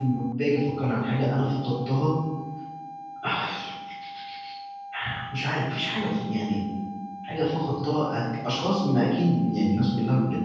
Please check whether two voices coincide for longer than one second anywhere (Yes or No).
No